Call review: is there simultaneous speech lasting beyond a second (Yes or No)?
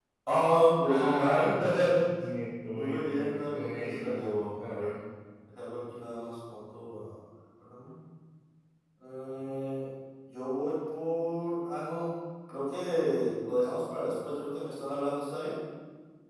Yes